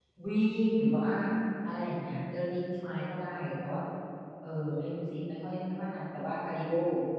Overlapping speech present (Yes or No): No